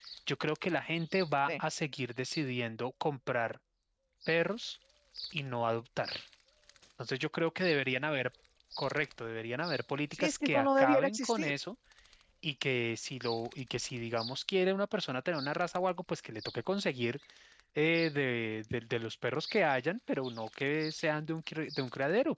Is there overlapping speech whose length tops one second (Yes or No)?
Yes